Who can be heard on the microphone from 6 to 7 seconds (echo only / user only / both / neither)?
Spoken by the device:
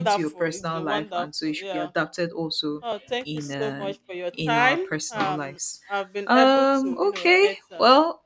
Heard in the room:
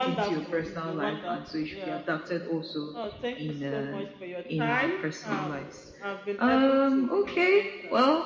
echo only